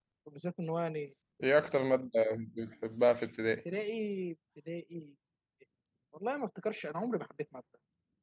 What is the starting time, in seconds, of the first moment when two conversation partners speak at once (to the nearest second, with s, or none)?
none